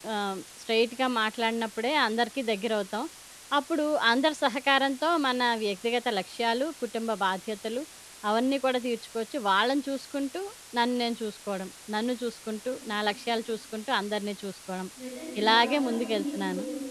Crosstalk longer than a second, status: present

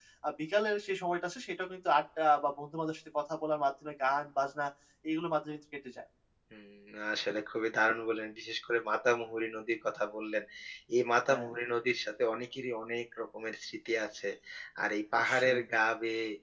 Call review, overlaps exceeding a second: none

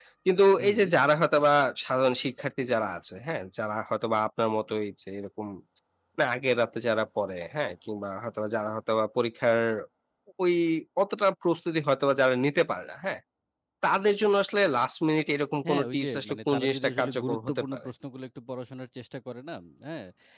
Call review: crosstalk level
present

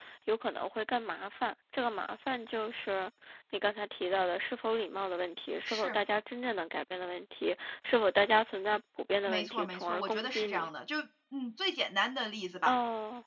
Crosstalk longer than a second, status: present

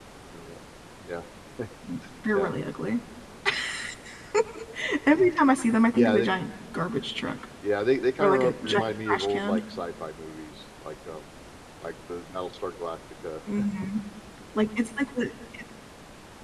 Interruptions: present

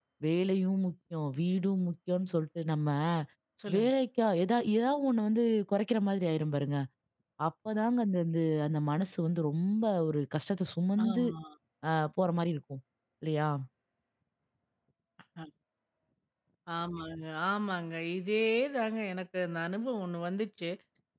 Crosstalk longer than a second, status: none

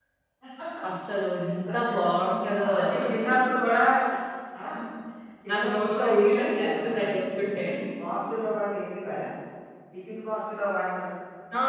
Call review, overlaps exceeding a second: present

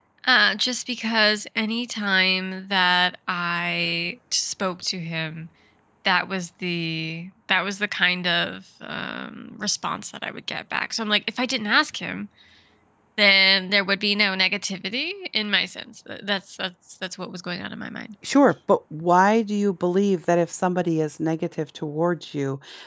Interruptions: none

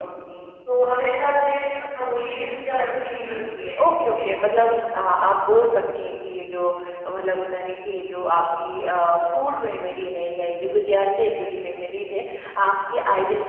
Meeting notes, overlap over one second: none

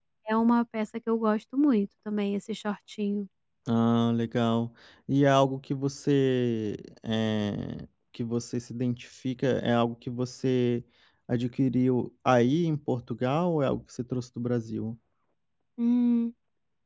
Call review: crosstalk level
none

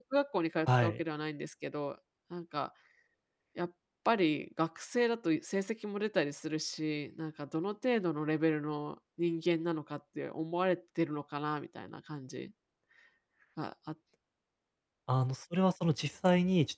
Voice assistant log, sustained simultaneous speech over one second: none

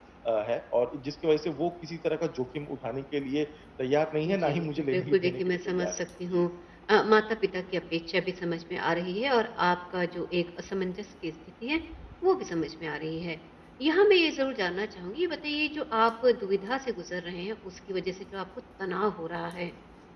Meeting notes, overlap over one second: present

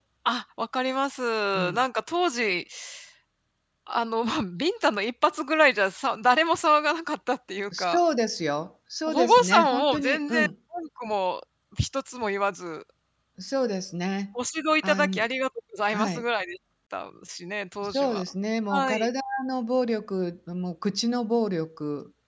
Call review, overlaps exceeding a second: present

